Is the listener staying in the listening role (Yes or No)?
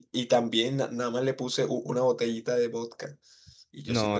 No